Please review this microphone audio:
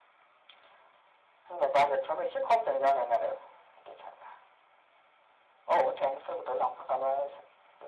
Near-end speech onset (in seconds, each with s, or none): none